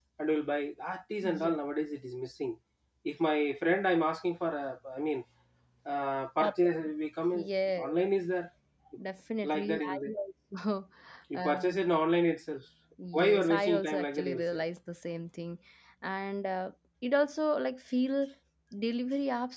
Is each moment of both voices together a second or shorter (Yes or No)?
No